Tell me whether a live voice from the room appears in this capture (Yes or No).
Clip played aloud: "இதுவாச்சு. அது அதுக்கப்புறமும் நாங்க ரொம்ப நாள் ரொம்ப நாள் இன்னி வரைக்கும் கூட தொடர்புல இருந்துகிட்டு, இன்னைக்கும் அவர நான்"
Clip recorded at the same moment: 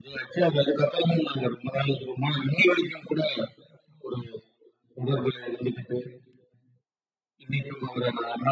No